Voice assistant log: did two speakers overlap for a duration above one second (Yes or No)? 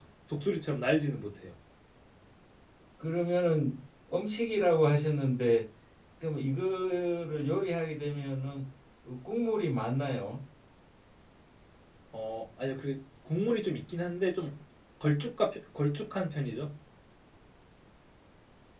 No